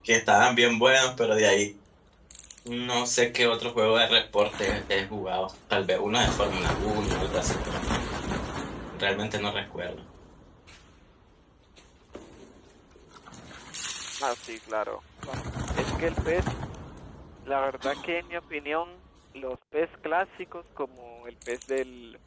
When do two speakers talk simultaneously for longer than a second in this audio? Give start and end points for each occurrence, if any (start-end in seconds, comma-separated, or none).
none